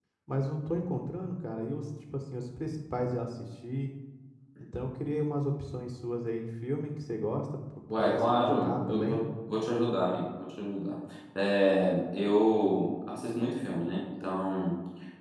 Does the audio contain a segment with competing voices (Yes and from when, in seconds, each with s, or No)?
Yes, from 7.9 s